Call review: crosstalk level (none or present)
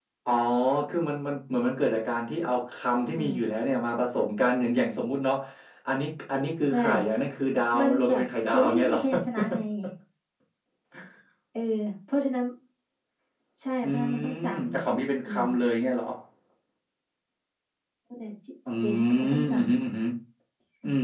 present